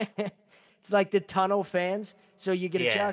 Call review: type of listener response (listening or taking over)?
listening